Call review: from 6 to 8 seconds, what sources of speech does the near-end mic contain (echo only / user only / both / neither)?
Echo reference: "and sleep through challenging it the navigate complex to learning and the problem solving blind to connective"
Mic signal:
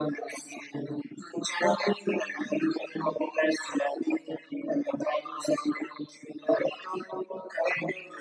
echo only